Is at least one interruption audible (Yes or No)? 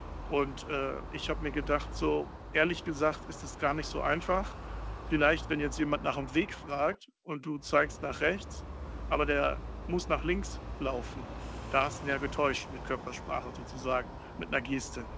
No